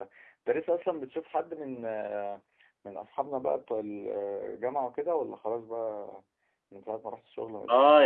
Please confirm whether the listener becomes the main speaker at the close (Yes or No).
Yes